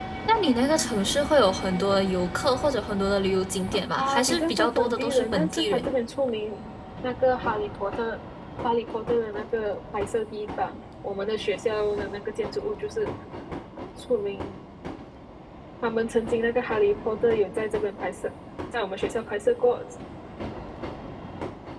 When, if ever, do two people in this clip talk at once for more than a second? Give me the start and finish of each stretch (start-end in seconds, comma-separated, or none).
4.0-5.9